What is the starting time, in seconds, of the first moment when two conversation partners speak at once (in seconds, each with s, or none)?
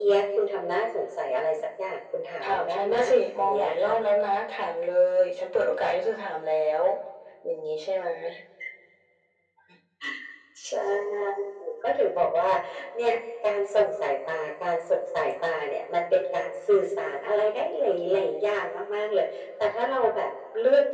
2.4 s